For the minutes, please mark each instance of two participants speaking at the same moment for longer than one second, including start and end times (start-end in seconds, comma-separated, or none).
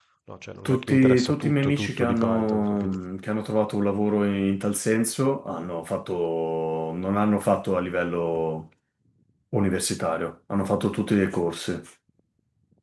0.7-3.0